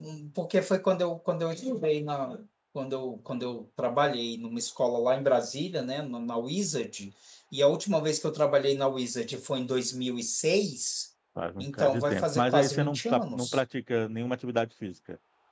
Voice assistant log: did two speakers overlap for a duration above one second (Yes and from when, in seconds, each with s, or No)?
Yes, from 11.6 s